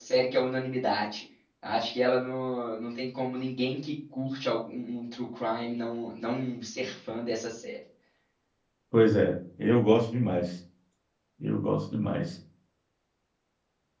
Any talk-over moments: No

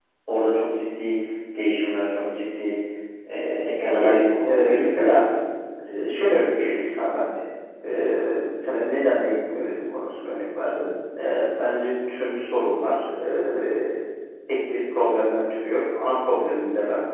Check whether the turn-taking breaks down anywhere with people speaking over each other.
Yes, from 3.8 s

